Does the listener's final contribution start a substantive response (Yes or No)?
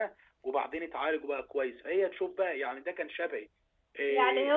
Yes